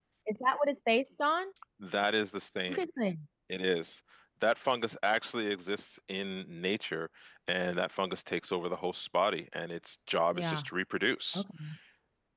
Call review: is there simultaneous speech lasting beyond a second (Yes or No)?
No